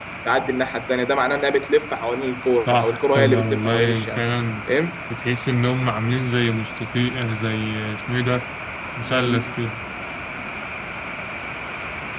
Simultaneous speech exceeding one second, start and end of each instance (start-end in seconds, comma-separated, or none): 2.7-4.3